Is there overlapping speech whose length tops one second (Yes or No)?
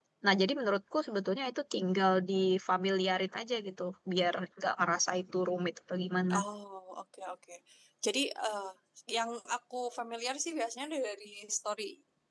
No